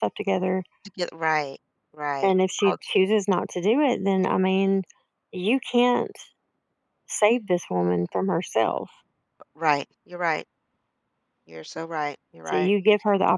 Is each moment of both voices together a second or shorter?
Yes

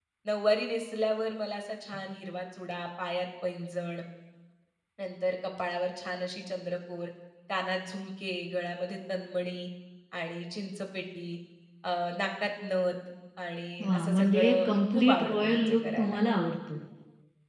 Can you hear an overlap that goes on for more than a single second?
Yes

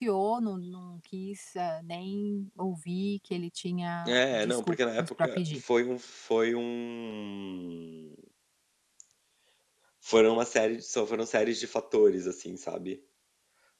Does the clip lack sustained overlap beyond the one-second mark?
No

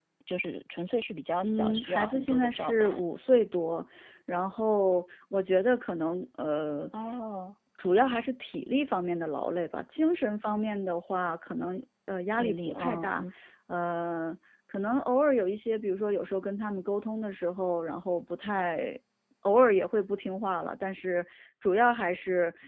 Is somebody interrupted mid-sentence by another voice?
Yes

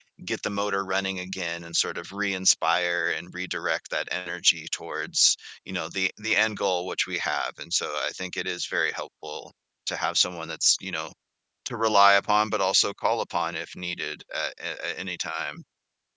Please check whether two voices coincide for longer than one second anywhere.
No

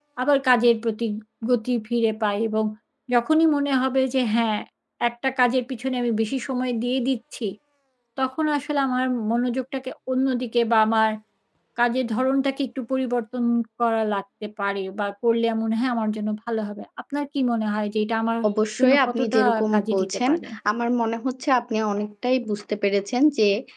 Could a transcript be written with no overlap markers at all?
No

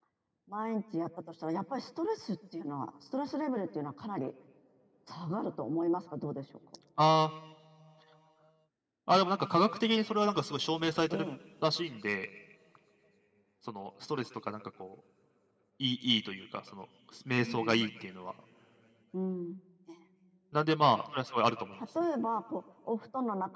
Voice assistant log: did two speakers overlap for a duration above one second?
No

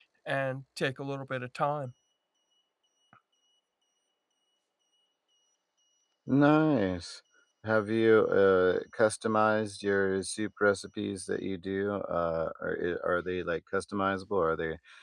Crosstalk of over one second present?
No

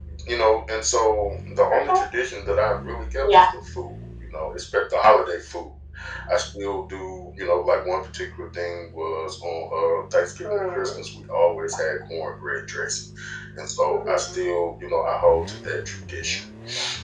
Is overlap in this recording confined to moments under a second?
Yes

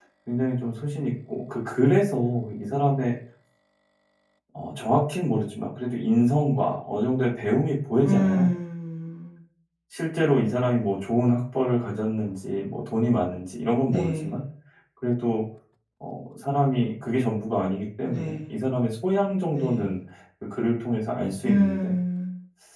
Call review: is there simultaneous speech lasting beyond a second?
No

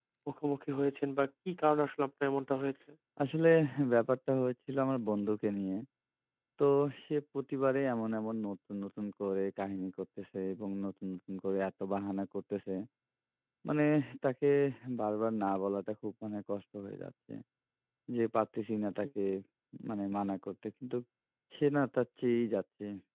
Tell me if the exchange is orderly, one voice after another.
Yes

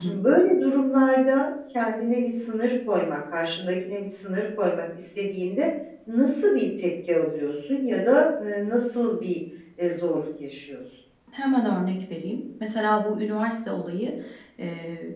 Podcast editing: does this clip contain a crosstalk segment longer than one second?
No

